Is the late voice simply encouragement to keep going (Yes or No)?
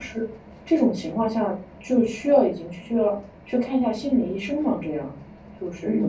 No